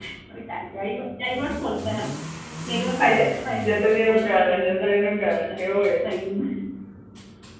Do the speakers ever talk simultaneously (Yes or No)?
Yes